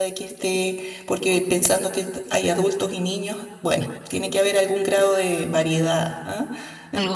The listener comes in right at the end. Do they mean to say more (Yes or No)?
No